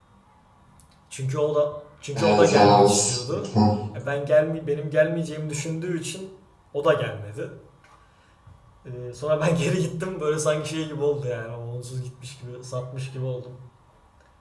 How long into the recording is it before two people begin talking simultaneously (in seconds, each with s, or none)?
2.1 s